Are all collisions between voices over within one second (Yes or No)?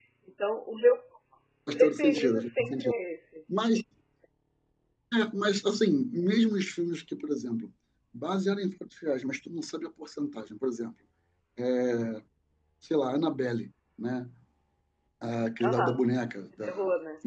No